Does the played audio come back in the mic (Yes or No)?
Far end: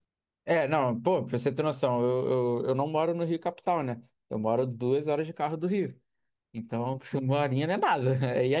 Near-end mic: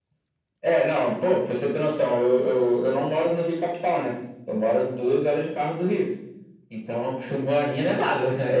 Yes